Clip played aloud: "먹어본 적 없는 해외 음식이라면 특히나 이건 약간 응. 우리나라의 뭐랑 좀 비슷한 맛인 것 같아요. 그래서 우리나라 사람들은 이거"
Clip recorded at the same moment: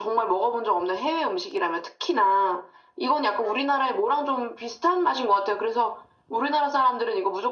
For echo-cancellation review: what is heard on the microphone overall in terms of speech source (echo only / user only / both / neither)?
echo only